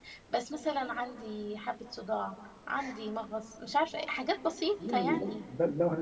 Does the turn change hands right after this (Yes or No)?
Yes